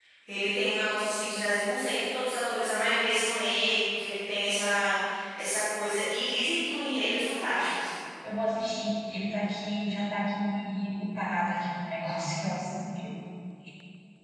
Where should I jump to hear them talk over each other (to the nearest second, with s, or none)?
none